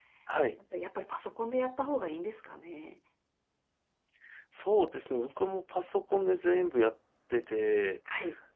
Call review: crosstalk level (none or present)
none